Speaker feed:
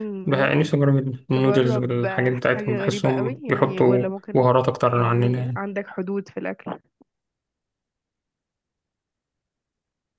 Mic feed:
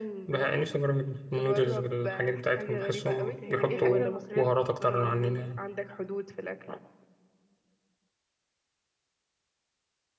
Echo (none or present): present